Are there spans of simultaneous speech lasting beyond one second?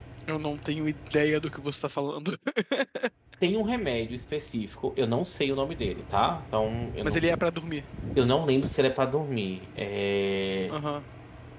No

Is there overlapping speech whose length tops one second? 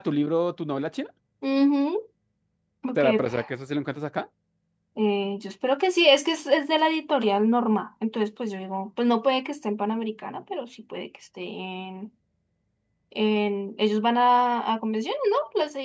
No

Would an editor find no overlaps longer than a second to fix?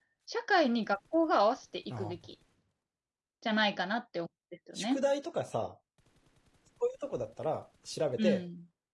Yes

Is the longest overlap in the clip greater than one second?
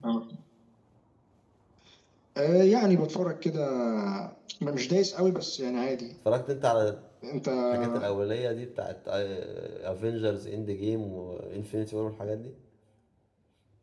No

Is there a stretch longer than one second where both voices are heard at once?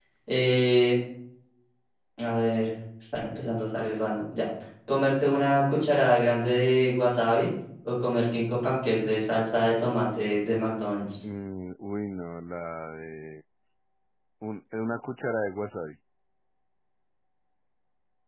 No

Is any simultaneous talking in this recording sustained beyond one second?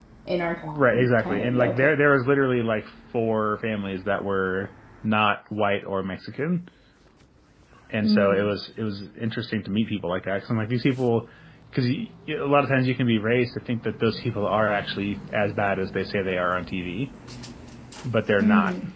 Yes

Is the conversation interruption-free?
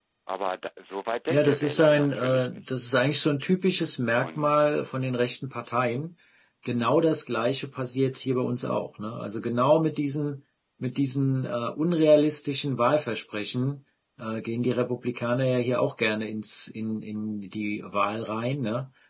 No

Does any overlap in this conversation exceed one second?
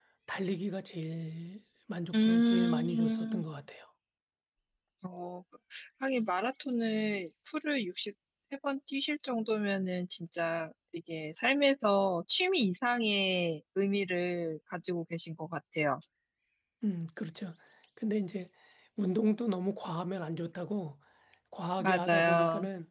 Yes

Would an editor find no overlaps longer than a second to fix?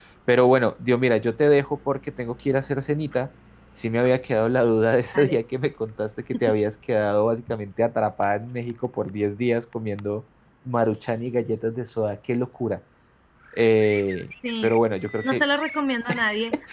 Yes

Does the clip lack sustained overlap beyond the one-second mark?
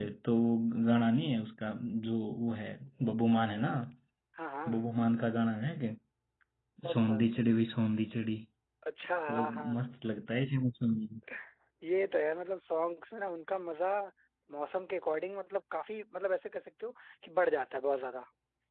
Yes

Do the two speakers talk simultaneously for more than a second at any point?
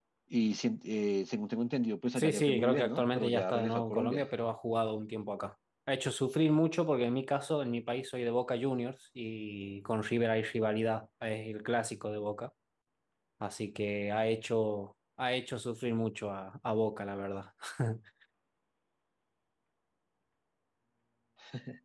Yes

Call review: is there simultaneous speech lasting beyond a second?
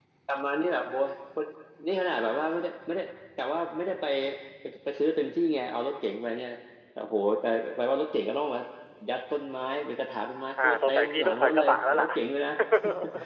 Yes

